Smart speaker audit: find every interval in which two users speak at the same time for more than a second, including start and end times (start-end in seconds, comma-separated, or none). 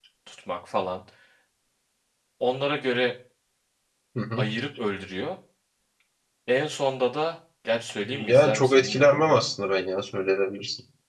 8.0-9.4